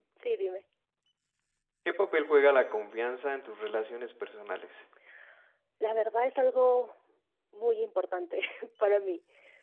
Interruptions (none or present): none